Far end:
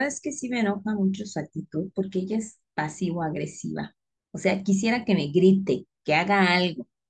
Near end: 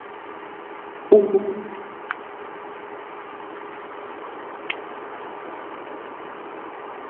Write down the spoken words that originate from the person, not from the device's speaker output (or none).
ujú,